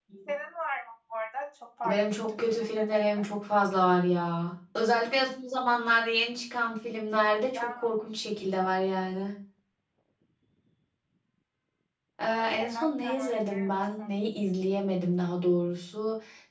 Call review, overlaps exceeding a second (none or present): present